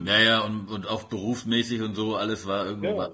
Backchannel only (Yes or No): Yes